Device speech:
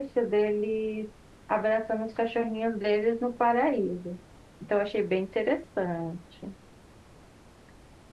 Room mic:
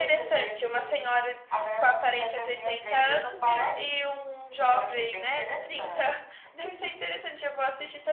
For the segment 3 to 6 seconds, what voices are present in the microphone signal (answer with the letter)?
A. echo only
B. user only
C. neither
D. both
D